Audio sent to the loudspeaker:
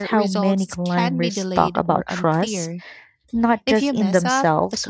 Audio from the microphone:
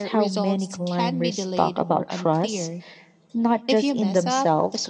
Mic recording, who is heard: echo only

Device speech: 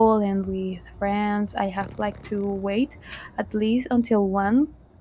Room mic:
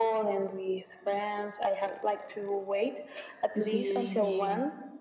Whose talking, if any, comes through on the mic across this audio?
both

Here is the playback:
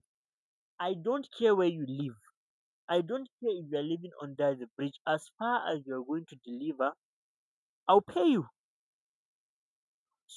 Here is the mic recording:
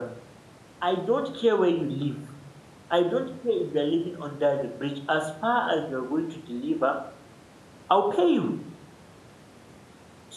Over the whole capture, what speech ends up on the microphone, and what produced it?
echo only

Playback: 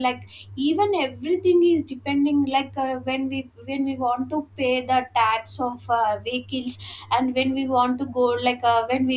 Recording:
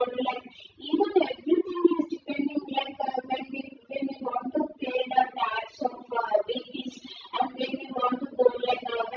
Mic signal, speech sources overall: echo only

